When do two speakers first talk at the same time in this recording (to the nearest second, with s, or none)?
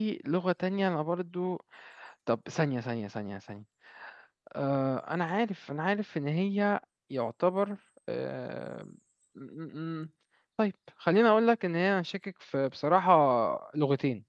none